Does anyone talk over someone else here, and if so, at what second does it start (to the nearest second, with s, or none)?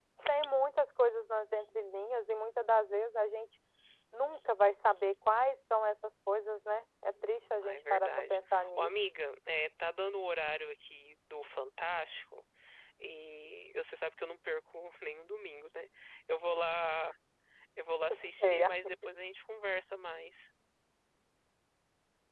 8 s